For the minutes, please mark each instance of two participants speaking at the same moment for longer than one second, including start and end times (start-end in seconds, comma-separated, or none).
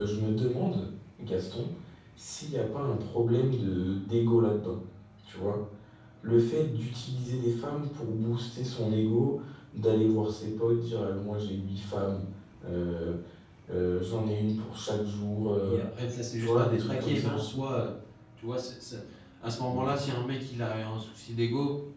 16.4-17.8